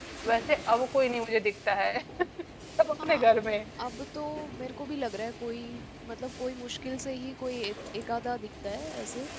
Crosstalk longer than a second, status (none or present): none